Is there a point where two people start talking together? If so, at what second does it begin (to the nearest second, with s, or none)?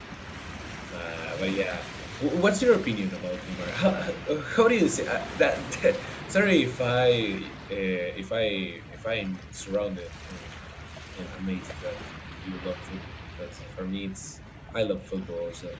none